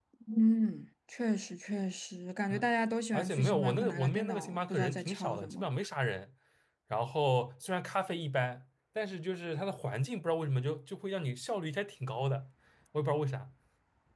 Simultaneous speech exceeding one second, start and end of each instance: 3.1-5.7

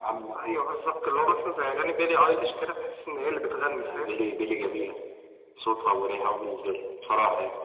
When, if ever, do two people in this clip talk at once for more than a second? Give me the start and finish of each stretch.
none

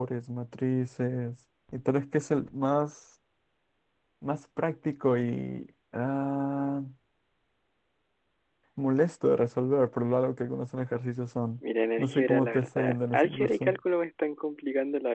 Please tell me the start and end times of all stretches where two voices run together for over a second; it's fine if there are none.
12.0-13.8

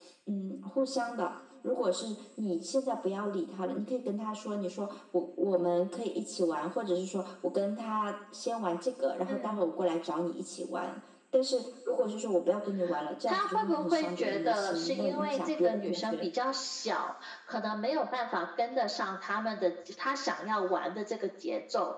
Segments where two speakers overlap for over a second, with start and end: 13.3-16.3

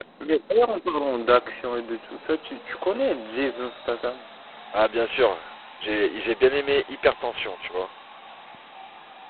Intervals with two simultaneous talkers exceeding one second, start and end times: none

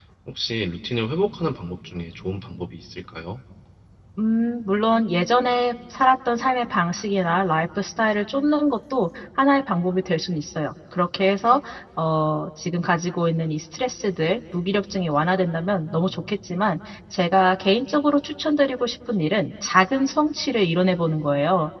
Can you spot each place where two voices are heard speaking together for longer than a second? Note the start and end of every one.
none

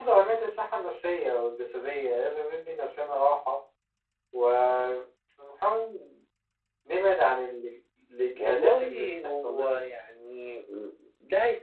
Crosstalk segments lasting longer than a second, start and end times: 8.4-9.8

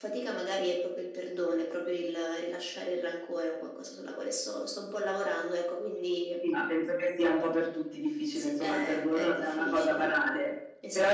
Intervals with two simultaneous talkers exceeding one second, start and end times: 8.3-10.1

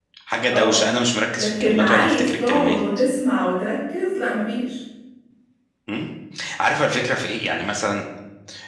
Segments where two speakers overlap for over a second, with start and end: 1.4-2.8

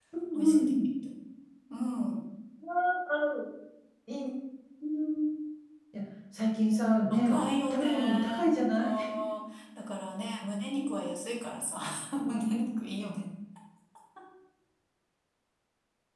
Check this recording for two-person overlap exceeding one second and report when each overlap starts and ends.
7.7-8.9

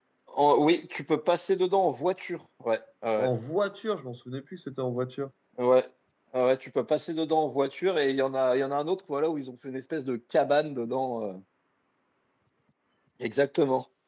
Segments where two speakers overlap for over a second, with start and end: none

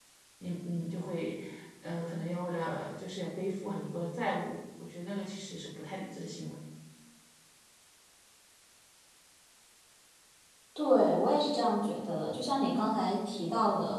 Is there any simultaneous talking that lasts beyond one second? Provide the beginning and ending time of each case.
none

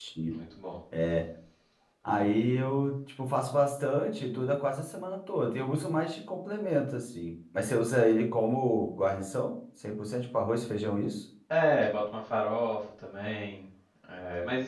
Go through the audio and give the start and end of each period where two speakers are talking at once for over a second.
none

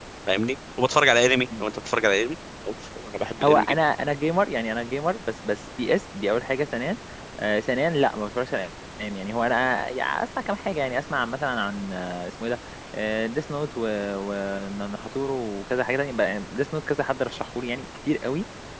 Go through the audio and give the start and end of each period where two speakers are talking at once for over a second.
none

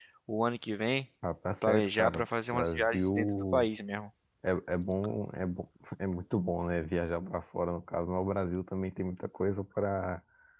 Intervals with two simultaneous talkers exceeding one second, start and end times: 1.7-3.7

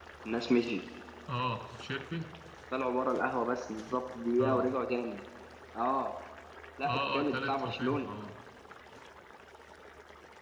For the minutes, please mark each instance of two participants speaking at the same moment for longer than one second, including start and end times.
6.8-8.1

